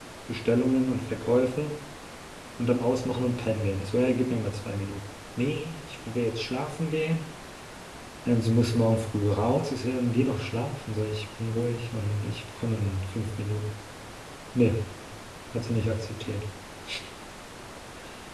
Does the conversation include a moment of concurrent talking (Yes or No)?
No